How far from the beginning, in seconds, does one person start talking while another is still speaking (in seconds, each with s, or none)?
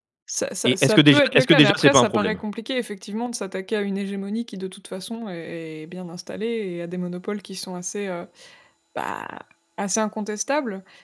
0.6 s